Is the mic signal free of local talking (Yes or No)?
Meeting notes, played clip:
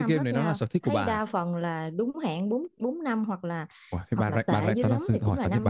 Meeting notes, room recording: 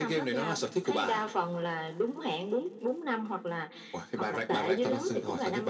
Yes